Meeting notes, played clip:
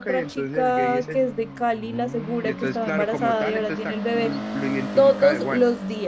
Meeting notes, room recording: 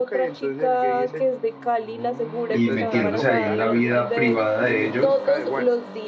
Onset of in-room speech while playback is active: 2.5 s

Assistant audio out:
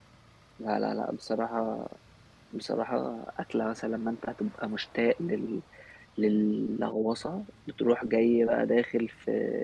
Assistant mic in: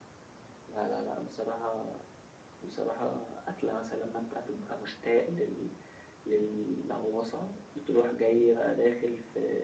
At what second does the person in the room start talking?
none

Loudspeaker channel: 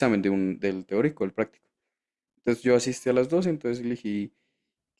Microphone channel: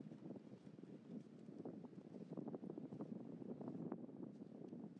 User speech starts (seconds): none

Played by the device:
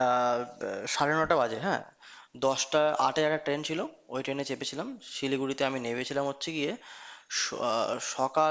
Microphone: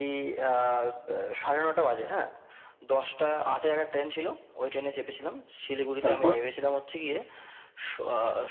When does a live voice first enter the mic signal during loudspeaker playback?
6.0 s

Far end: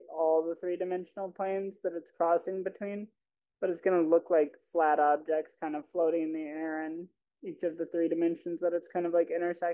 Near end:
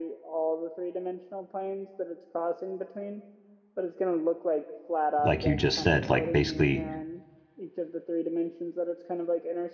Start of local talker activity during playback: 5.2 s

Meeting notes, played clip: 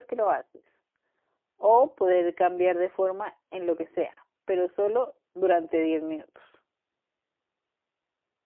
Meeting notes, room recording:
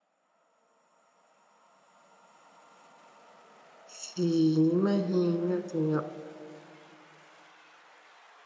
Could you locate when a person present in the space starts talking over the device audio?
4.0 s

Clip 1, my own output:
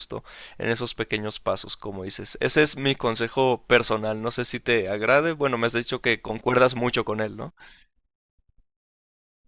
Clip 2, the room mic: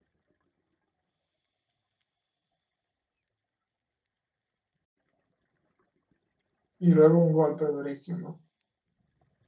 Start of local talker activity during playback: 6.8 s

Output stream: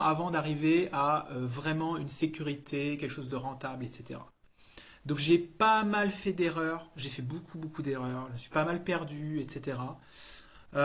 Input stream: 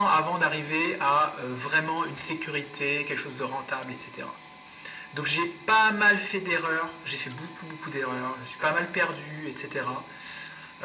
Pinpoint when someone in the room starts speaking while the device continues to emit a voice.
none

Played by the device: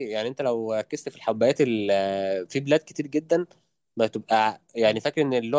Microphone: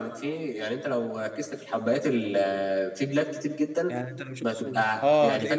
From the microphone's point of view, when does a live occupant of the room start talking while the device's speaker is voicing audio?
3.9 s

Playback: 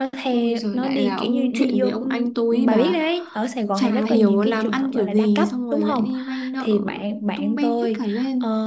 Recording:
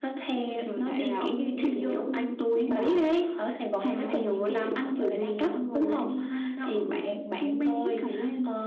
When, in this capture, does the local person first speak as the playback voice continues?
none

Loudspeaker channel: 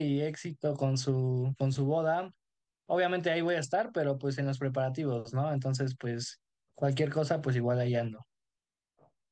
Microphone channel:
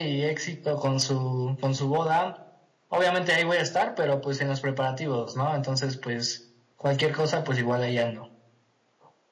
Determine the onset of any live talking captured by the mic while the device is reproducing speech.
none

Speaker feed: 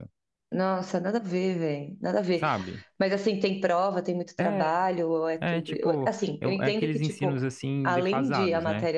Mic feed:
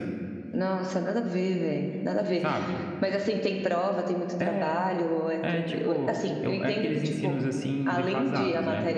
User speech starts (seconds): none

